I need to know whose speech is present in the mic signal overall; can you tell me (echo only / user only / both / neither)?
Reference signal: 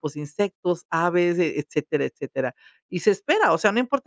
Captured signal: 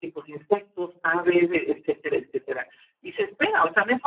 echo only